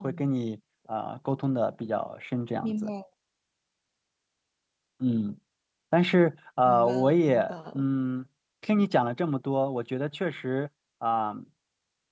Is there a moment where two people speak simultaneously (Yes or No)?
Yes